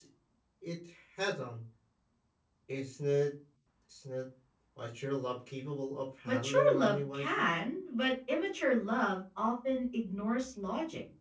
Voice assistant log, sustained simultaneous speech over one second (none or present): present